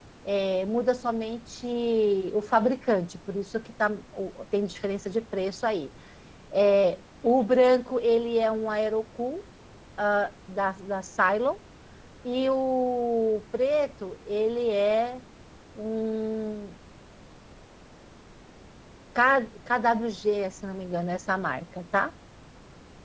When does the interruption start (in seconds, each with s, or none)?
none